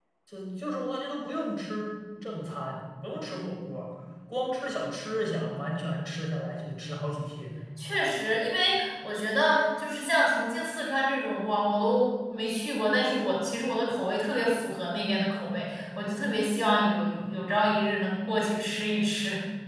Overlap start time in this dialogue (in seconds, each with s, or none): none